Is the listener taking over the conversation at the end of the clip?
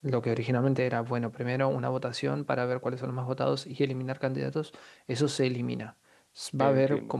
No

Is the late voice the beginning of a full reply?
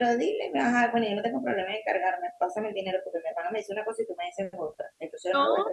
No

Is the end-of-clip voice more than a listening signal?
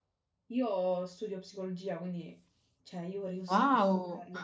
No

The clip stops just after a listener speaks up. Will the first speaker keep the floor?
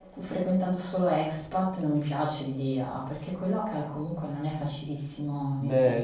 No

